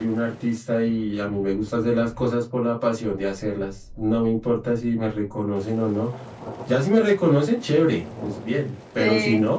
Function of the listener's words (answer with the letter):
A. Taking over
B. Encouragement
B